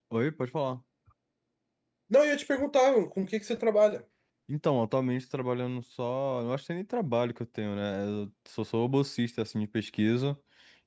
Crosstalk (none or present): none